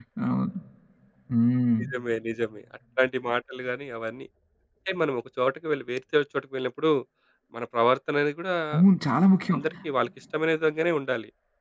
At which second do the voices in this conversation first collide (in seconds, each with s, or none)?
none